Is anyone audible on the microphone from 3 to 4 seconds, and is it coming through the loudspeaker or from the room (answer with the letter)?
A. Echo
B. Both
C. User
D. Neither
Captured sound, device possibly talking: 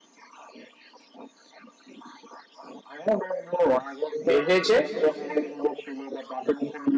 A